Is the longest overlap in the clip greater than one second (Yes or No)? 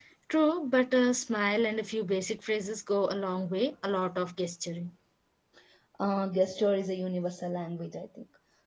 No